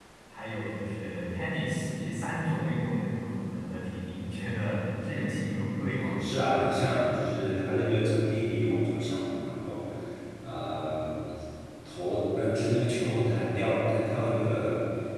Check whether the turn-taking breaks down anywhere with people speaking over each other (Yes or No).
No